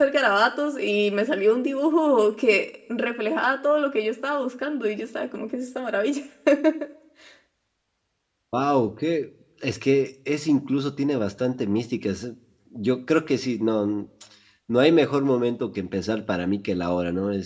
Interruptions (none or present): none